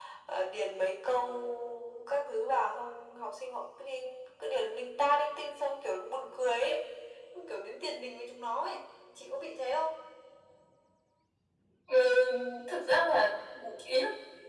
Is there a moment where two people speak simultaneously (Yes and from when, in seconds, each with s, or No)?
No